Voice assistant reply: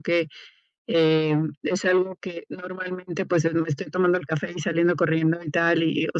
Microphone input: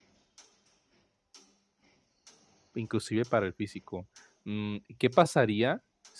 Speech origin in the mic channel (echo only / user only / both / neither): user only